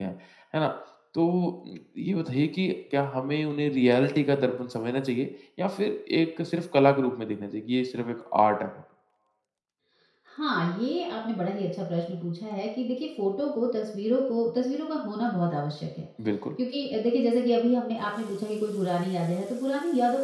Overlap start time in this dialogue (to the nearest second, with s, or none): none